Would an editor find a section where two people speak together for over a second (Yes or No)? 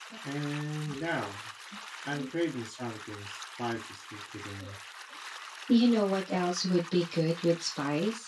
No